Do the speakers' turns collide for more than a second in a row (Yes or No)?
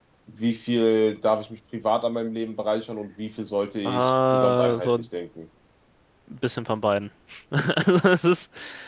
Yes